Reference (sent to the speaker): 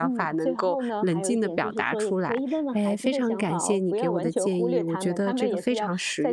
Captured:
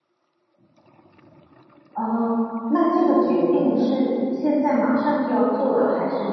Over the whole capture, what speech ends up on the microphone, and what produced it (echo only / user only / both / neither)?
user only